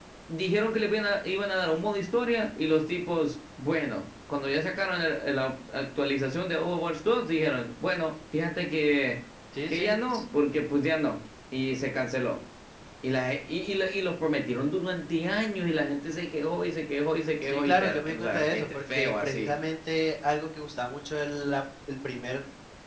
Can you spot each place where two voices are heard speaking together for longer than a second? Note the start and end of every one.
17.4-19.5

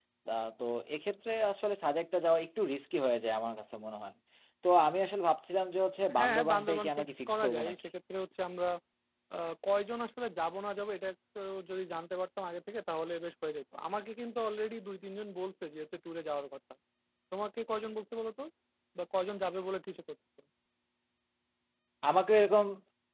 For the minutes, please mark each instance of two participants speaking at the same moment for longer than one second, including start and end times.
6.2-7.8

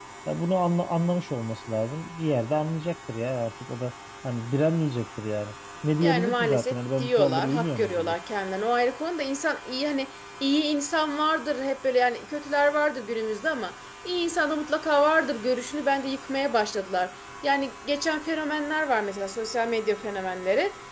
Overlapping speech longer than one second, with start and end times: 6.0-8.2

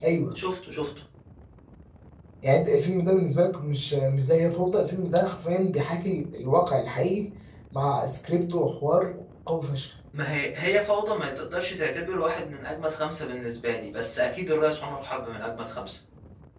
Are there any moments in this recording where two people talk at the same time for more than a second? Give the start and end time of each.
none

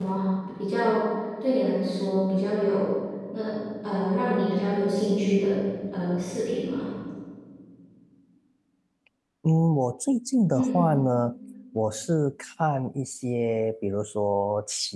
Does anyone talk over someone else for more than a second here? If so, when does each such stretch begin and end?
none

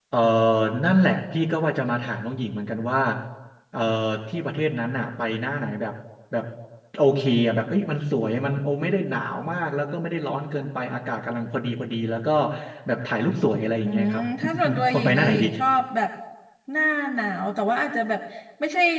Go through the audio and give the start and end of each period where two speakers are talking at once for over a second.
13.8-15.4

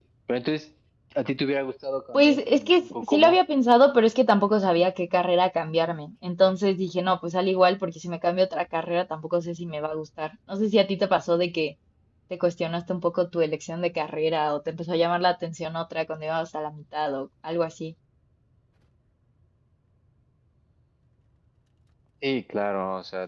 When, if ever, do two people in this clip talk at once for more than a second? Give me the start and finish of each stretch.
2.1-3.4

